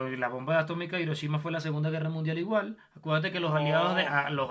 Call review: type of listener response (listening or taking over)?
listening